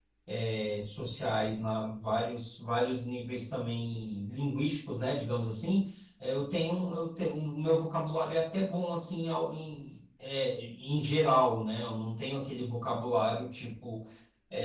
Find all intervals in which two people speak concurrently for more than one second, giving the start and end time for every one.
none

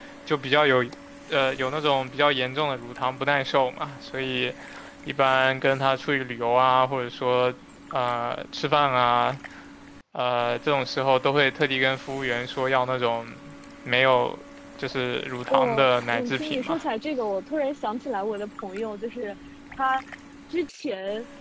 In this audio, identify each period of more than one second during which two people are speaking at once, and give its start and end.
15.5-16.8

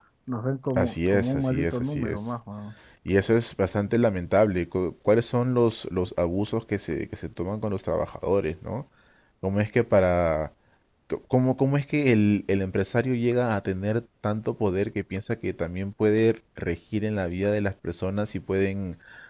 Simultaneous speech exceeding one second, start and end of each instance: 0.7-2.3

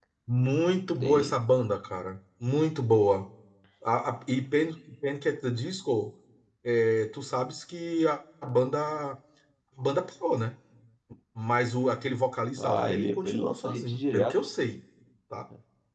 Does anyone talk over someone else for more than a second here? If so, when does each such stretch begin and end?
12.6-14.3

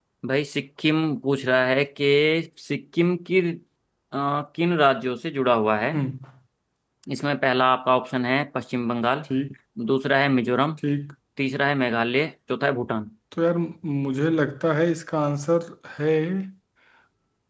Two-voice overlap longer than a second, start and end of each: none

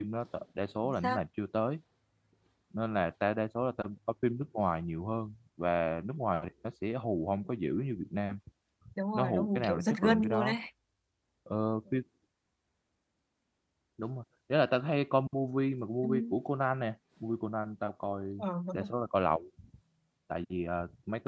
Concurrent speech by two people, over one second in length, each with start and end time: 9.1-10.6

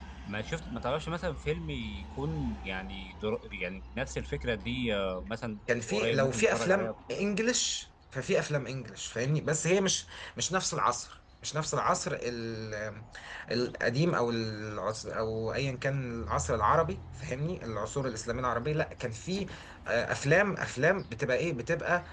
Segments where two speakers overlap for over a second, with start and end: 5.9-7.2

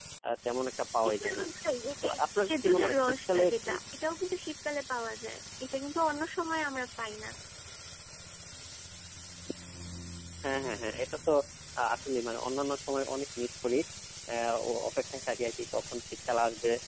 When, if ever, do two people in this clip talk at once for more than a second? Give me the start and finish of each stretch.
2.0-3.7

